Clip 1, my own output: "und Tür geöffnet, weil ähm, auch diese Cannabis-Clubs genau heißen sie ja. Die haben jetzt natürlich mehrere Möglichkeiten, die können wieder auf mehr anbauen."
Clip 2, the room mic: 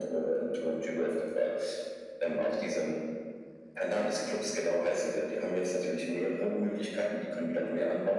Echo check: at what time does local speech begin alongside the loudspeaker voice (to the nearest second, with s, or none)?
none